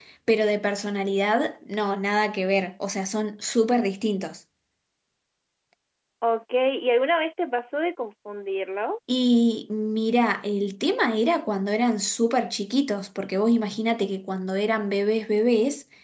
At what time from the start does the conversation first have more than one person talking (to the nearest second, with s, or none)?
none